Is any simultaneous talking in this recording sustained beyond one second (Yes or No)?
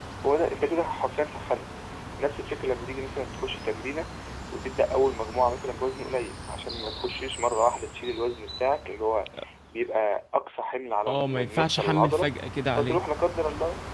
Yes